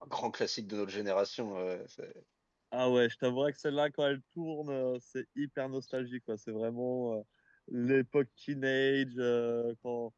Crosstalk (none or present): none